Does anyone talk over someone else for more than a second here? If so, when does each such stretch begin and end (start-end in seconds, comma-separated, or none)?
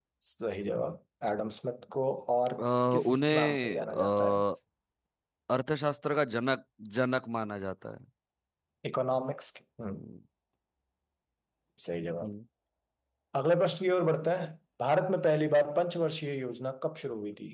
3.1-4.4